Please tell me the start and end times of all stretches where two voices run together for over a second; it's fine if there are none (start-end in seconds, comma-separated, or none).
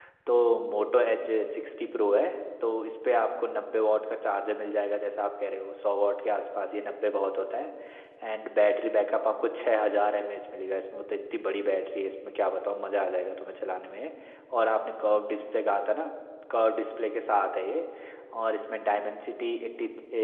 none